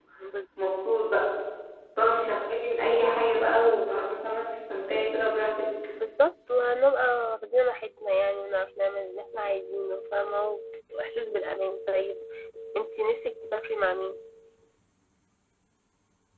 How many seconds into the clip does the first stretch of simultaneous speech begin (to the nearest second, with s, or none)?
none